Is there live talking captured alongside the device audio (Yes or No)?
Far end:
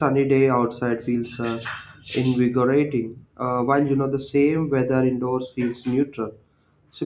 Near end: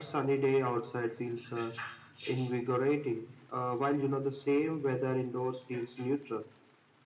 No